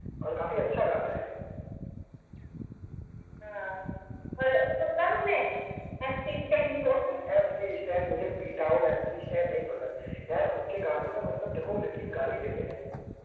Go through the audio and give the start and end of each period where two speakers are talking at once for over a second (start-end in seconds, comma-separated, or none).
none